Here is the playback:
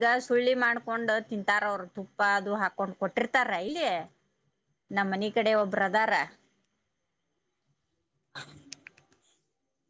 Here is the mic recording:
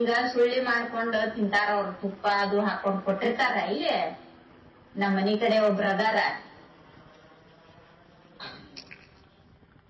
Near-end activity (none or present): none